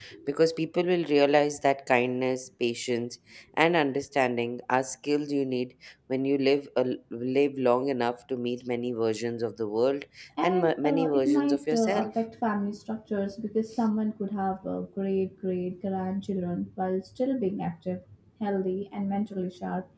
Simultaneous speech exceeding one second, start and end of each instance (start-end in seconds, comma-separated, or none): 10.4-12.1